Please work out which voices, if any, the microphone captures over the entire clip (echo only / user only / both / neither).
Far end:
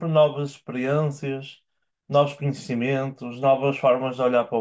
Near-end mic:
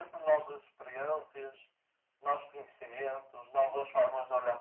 echo only